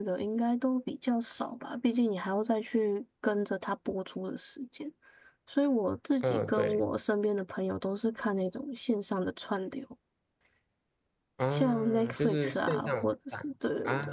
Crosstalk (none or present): present